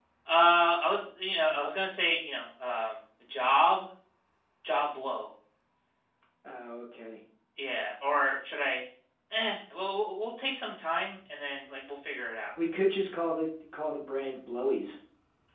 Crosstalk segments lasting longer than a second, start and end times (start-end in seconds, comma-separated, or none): none